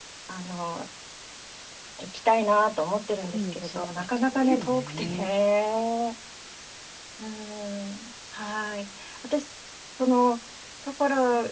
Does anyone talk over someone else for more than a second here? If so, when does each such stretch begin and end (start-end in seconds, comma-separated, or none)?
3.3-5.3